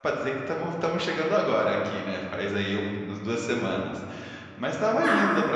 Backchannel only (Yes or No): Yes